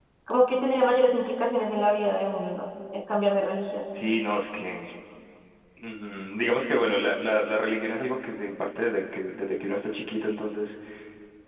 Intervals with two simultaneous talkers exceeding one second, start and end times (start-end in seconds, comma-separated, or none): none